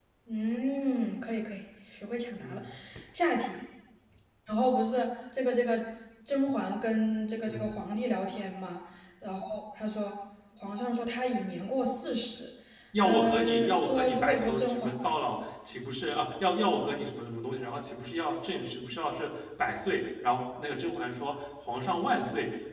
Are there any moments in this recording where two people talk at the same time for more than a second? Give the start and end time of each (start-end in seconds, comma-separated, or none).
13.0-14.9